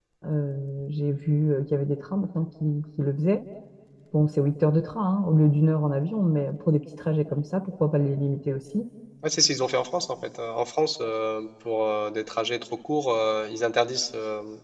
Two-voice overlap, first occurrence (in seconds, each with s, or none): none